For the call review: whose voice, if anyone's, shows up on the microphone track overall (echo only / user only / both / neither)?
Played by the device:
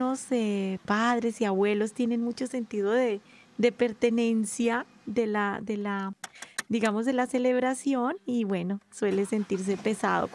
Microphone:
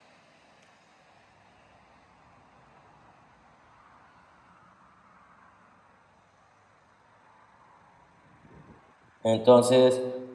user only